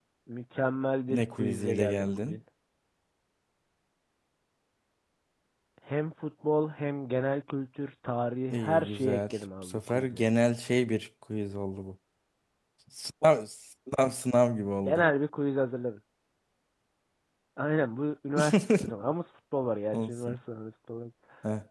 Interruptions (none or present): present